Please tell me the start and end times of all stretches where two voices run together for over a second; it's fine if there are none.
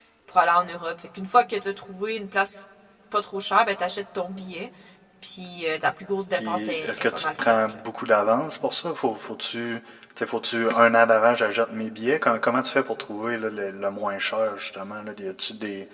6.3-7.8

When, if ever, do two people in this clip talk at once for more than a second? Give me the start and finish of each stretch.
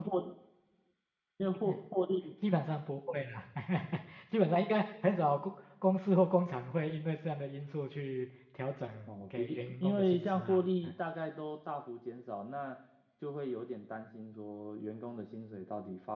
9.1-10.9

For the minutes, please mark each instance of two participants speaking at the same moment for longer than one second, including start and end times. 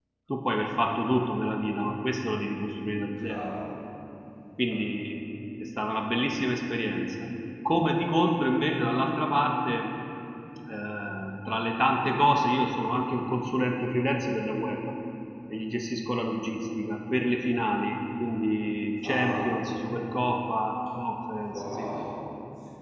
none

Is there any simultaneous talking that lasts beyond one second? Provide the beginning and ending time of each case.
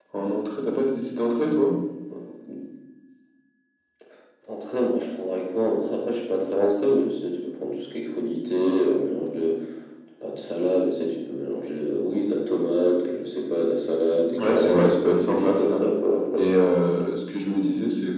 14.4-15.8

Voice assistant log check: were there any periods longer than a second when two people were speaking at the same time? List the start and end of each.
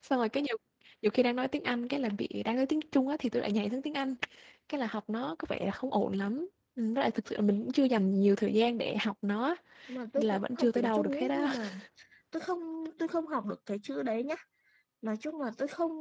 10.2-11.5

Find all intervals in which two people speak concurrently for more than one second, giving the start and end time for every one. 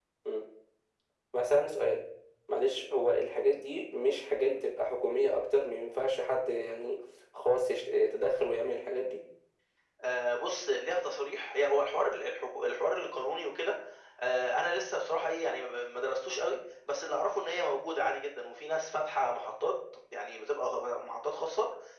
none

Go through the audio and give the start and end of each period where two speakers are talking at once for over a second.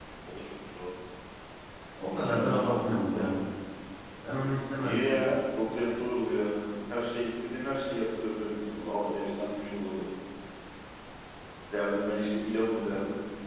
2.0-3.3

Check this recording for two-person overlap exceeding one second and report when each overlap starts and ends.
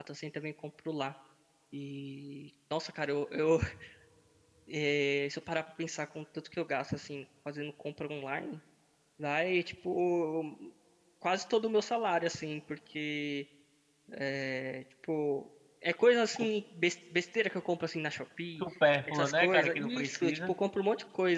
19.1-20.5

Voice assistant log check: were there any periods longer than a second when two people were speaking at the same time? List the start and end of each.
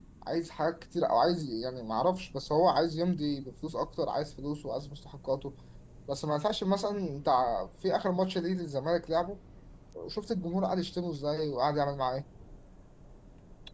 none

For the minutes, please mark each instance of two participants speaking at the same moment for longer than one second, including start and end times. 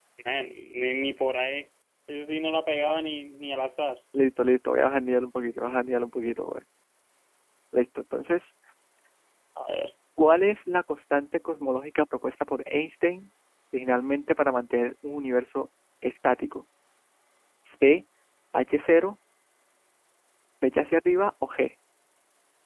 none

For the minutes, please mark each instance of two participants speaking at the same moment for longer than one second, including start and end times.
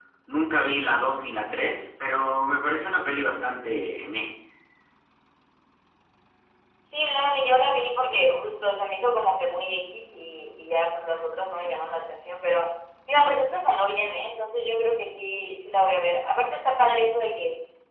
none

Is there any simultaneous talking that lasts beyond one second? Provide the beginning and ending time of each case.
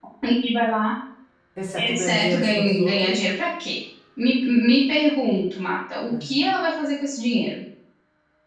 1.8-3.4

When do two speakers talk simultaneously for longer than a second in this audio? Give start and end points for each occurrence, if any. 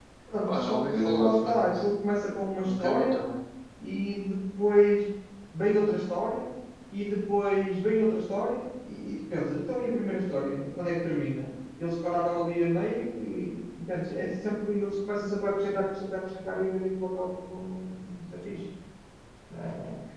0.5-1.8

